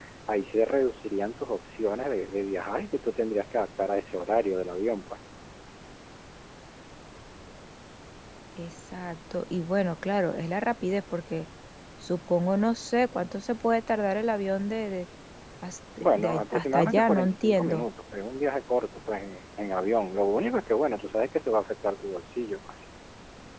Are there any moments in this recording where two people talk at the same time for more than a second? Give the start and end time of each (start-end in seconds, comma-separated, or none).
16.2-17.8